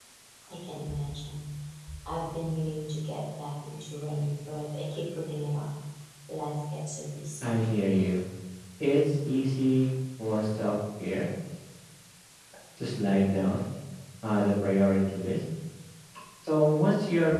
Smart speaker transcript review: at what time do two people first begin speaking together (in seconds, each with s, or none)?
none